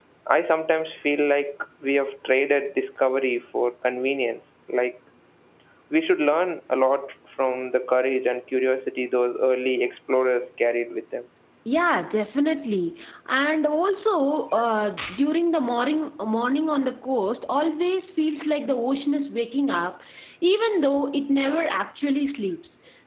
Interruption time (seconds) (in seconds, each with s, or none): none